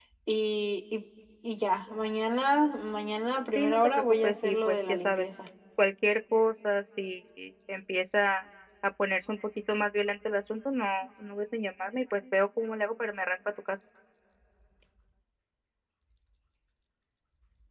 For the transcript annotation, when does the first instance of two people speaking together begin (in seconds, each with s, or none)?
3.5 s